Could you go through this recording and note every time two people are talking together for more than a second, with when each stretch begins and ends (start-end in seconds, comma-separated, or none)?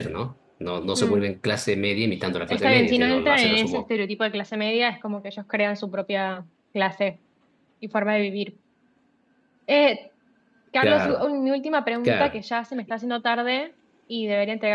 2.5-3.8